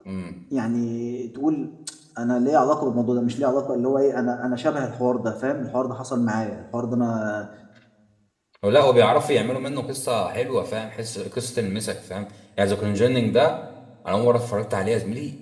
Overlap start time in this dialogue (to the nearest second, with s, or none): none